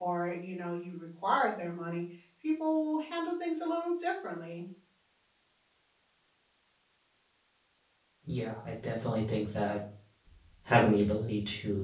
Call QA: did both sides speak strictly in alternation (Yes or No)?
Yes